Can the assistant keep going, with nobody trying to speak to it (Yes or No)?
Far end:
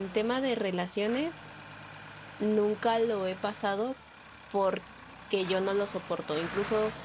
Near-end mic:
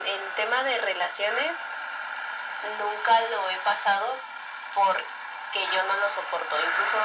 Yes